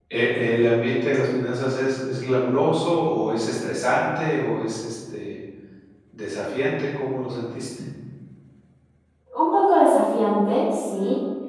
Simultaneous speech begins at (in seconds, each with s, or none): none